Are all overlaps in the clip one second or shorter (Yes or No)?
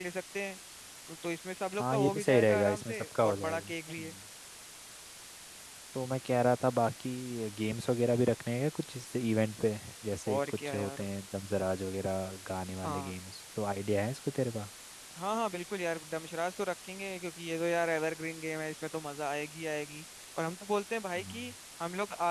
No